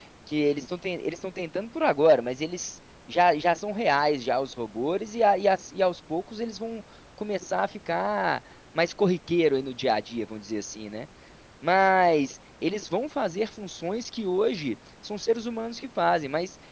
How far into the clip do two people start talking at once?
none

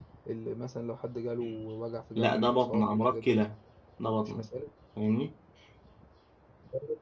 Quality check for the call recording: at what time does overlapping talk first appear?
2.1 s

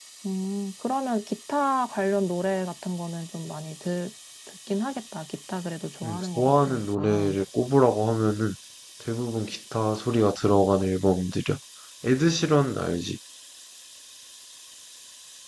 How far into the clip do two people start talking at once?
6.0 s

